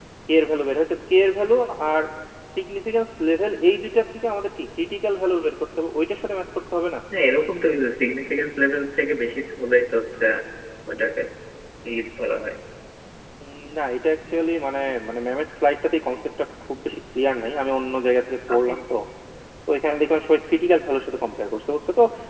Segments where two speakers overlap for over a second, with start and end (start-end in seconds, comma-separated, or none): none